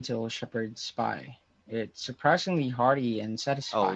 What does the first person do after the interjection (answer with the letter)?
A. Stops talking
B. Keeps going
A